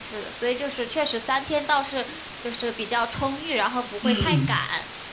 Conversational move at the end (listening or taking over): taking over